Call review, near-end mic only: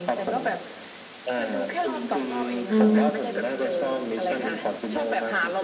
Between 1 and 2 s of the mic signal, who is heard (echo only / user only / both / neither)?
echo only